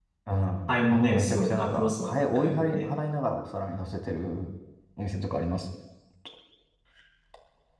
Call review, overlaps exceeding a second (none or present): present